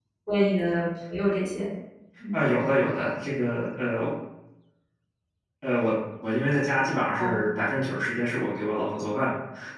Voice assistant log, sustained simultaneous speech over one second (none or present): none